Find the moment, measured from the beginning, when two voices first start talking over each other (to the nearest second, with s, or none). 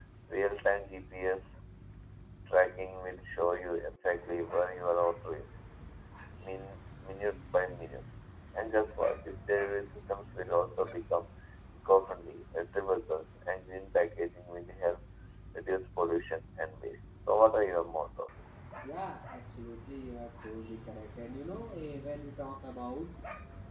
none